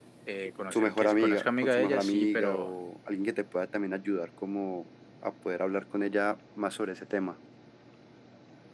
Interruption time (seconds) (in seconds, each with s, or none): 0.7 s